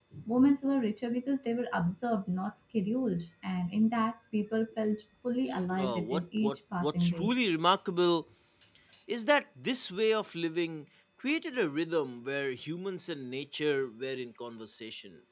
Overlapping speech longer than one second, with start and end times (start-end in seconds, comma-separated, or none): 5.8-7.3